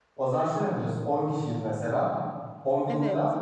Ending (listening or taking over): listening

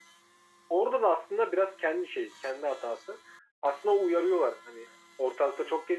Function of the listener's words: listening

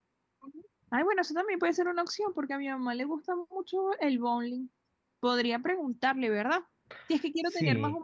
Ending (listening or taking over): listening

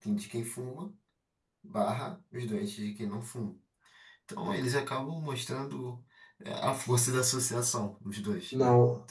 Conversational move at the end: taking over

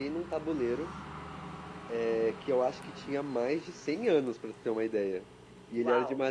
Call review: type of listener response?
listening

